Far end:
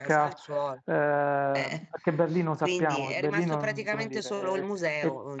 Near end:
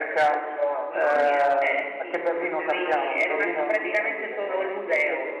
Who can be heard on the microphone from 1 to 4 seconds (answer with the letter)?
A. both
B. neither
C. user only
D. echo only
A